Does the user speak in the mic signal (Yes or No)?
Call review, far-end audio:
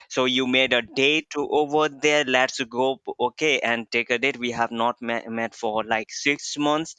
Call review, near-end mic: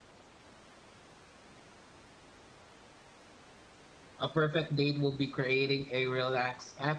Yes